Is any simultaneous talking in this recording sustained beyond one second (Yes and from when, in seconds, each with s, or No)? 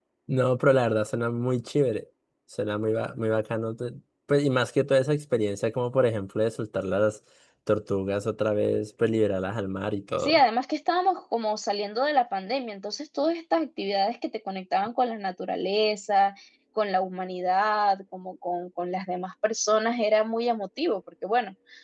No